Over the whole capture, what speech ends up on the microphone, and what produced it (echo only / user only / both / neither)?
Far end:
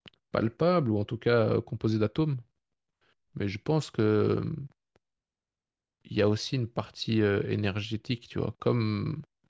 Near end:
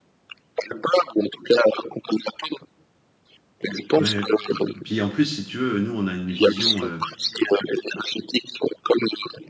both